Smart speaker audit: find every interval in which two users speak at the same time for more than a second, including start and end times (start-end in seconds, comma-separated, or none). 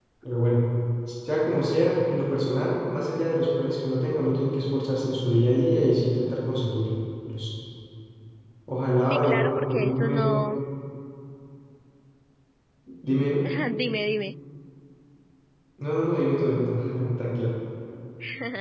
9.0-10.4